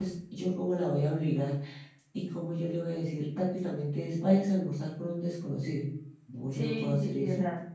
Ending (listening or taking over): taking over